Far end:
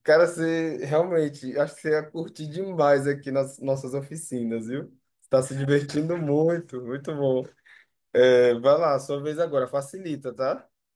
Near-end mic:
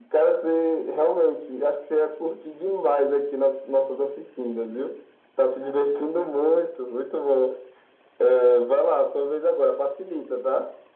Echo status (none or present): present